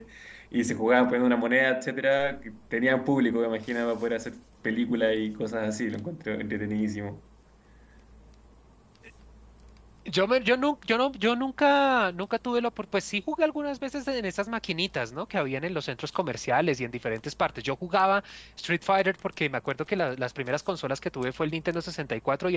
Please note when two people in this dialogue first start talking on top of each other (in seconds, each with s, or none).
none